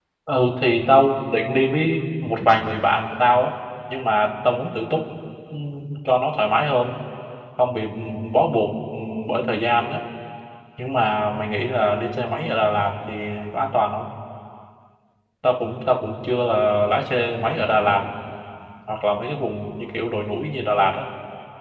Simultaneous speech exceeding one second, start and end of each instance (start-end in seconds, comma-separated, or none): none